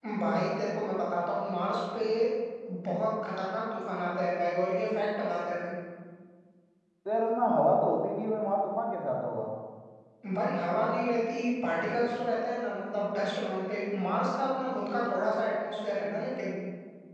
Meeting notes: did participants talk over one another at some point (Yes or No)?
No